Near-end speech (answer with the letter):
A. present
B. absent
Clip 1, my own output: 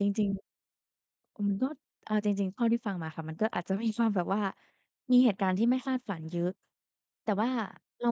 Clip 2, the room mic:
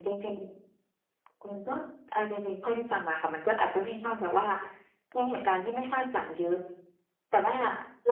B